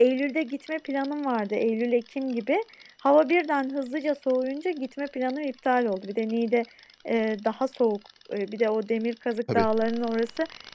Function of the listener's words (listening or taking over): listening